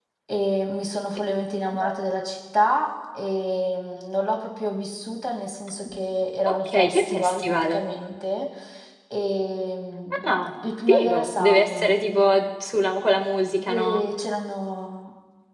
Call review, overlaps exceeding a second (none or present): present